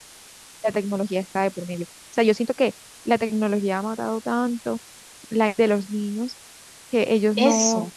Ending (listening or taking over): listening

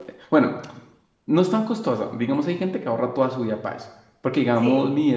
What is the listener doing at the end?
listening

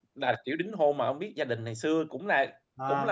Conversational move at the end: taking over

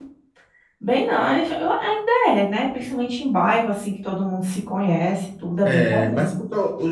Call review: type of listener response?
taking over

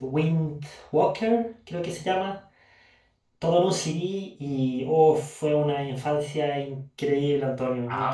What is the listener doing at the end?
taking over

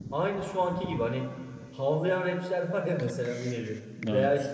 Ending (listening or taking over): listening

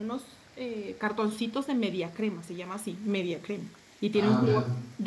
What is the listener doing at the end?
listening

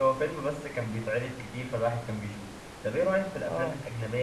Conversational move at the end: listening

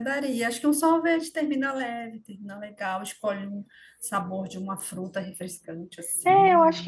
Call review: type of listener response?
taking over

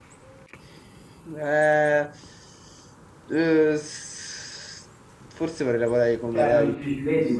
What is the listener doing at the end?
taking over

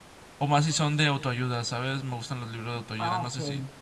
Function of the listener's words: taking over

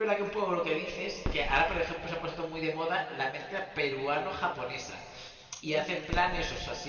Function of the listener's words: listening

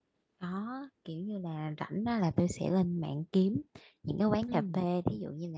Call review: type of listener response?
listening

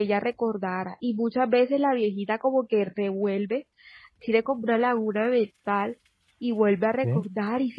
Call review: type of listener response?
listening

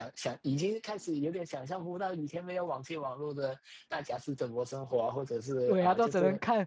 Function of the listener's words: taking over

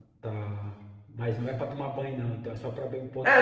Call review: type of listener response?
taking over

